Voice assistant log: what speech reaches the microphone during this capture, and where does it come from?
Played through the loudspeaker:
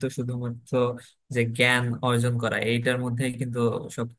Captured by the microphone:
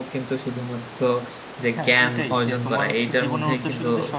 both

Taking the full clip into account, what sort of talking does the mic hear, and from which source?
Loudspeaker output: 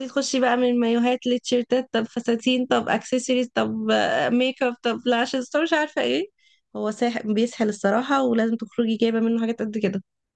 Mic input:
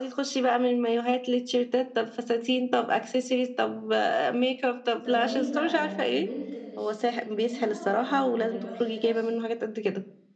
both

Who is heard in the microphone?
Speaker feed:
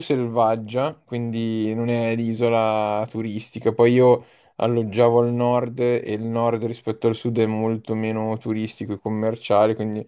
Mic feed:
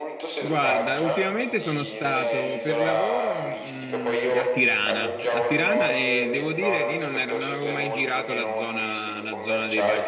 both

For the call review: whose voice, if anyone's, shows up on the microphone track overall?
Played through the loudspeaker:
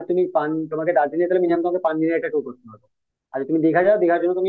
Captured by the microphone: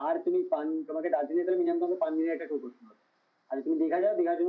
echo only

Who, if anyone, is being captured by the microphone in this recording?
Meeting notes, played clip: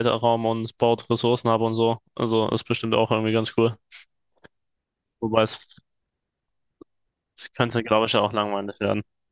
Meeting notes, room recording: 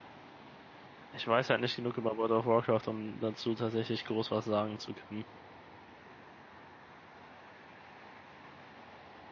user only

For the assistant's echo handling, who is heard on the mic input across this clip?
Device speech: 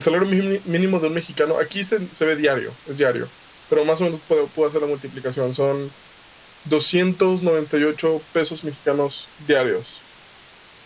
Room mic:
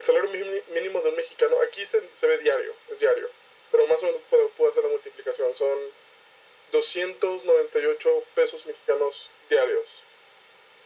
echo only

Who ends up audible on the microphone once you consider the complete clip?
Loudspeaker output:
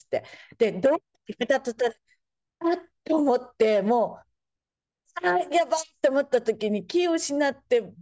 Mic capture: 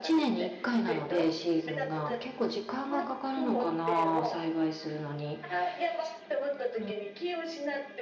both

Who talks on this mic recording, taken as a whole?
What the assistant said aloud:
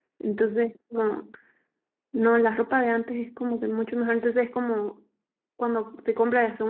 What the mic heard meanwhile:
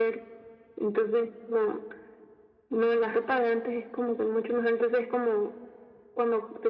echo only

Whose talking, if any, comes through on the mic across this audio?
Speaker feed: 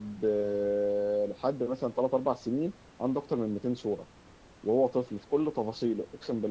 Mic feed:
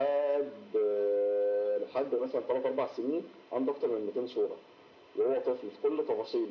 echo only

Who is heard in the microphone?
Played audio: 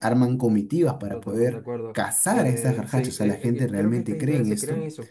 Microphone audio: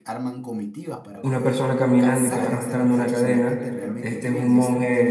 both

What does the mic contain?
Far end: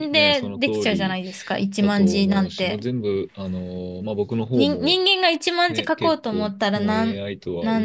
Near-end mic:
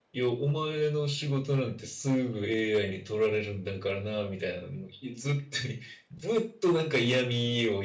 user only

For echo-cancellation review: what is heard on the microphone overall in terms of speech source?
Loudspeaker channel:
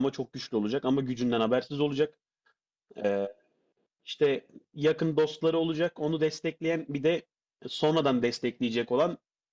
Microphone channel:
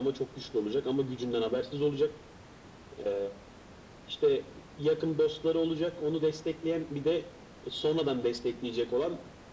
echo only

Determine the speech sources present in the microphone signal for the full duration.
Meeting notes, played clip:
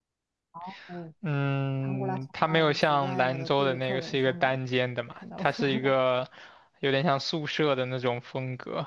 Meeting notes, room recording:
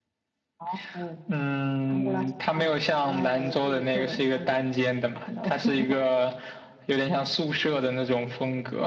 echo only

